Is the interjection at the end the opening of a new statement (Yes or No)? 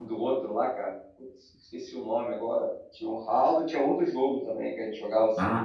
Yes